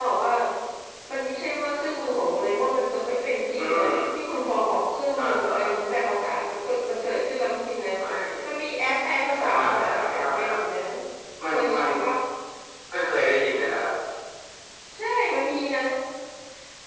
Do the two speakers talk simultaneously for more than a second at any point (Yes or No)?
Yes